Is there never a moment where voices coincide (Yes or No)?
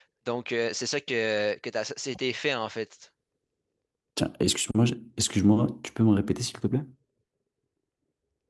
Yes